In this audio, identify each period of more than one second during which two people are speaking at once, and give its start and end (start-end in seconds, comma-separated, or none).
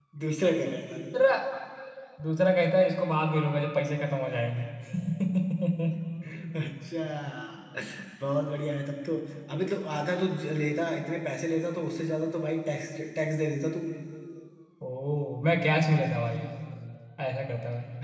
none